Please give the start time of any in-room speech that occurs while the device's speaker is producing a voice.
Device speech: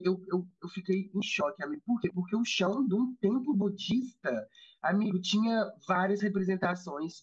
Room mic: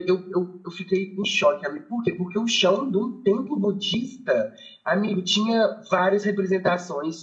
none

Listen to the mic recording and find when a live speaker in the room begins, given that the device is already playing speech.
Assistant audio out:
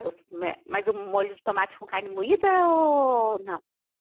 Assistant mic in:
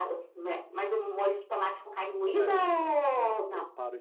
2.4 s

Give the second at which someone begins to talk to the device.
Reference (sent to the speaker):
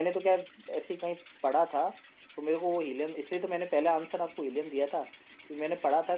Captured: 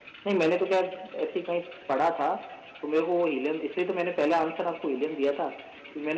none

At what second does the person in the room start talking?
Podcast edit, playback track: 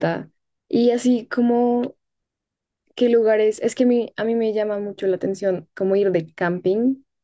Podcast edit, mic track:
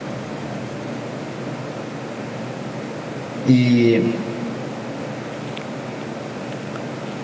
3.4 s

